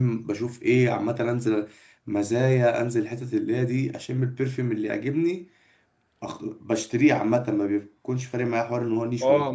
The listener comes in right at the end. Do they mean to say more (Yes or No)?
Yes